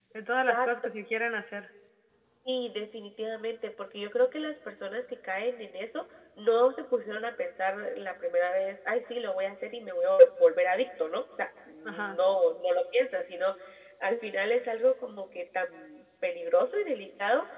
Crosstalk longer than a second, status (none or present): none